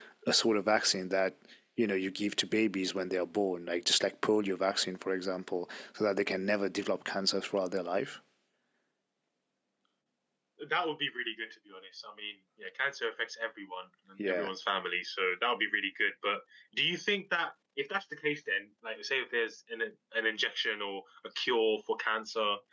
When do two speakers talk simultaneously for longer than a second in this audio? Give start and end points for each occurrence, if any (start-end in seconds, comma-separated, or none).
none